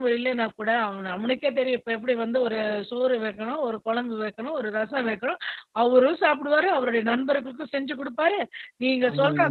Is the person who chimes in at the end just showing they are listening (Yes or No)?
Yes